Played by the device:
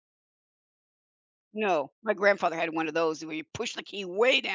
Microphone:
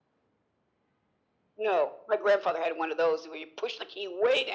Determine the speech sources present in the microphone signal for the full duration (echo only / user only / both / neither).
echo only